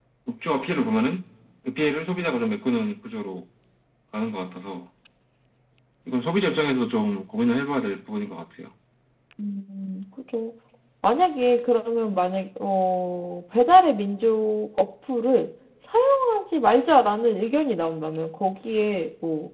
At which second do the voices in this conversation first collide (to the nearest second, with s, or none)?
none